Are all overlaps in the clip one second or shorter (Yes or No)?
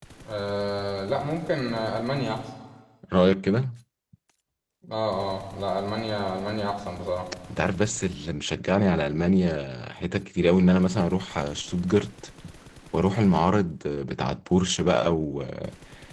Yes